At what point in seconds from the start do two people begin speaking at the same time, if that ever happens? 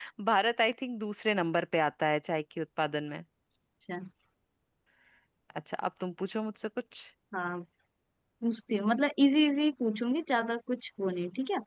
none

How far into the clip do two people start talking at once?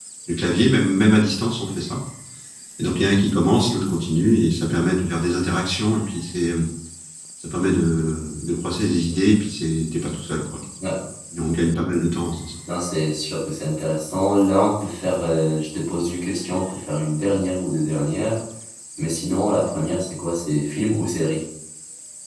none

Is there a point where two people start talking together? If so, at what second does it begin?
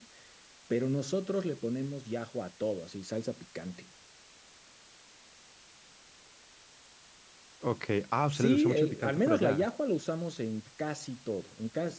8.3 s

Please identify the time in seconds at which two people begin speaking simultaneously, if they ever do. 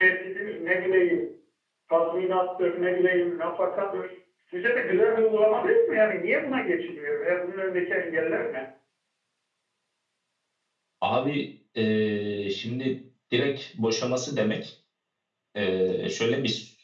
none

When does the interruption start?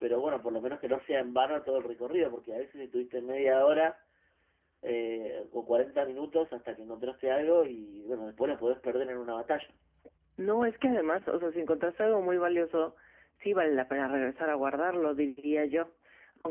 none

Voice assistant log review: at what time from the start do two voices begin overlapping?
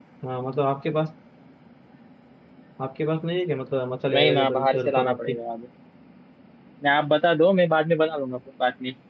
4.1 s

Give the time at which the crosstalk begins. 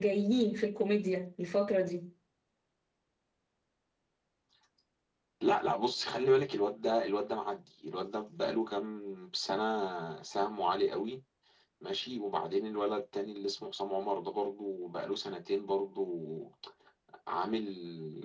none

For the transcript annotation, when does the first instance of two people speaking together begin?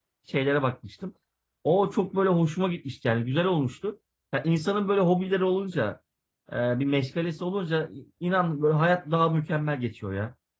none

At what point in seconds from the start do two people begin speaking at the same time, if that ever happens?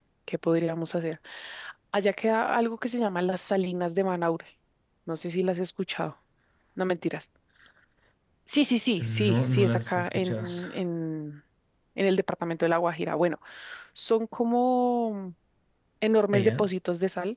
9.0 s

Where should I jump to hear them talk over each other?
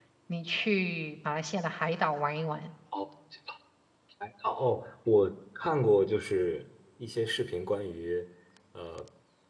none

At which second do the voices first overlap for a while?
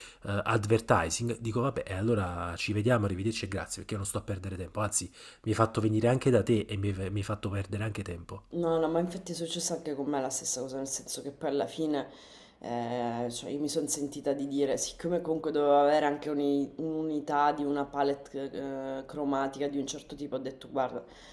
none

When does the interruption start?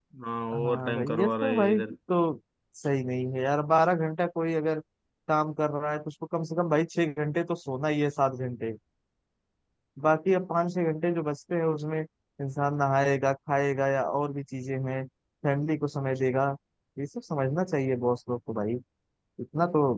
0.5 s

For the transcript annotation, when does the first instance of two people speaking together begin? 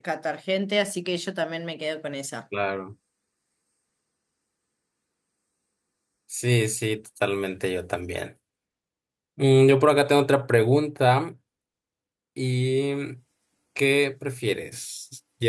none

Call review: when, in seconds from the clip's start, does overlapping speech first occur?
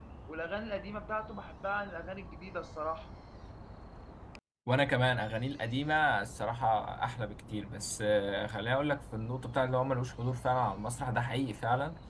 none

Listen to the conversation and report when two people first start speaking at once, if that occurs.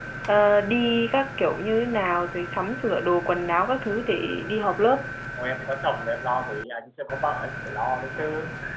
none

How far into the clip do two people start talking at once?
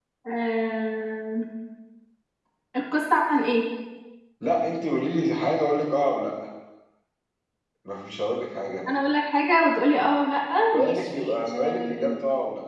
10.7 s

